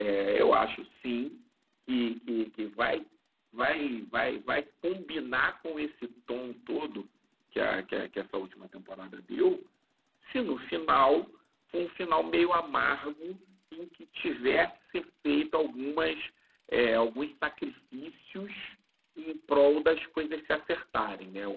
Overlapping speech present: No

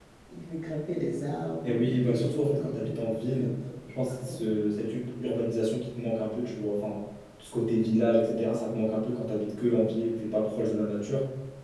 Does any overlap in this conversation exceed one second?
Yes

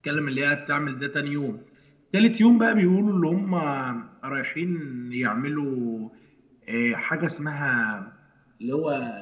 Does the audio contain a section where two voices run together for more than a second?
No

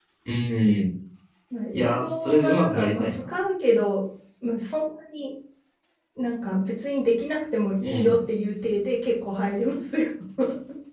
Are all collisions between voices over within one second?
No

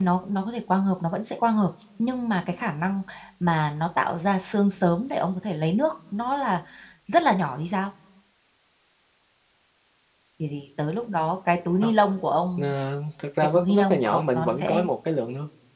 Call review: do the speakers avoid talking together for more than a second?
No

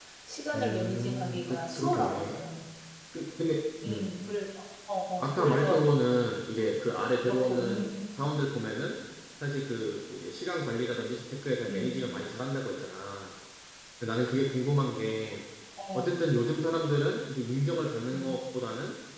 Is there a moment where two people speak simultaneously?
Yes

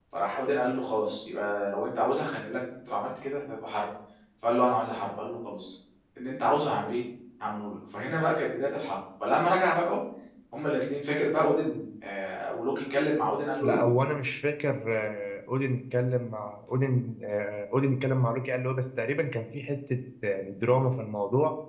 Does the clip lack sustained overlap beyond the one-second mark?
Yes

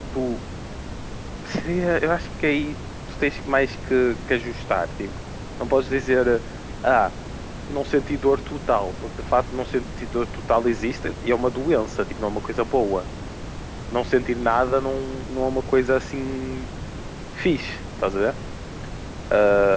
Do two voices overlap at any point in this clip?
No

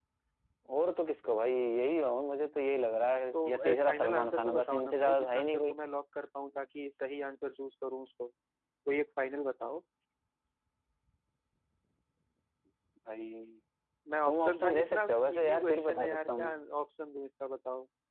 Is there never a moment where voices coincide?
No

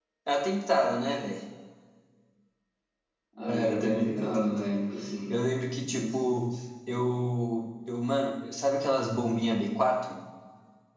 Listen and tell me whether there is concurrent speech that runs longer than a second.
Yes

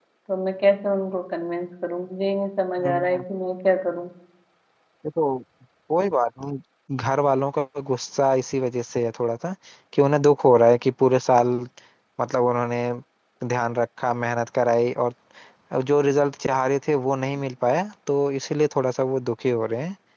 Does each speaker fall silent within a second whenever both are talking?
Yes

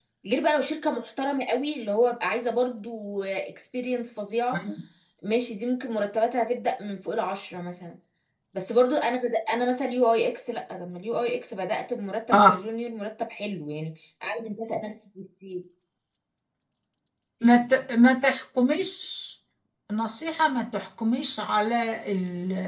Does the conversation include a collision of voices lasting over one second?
No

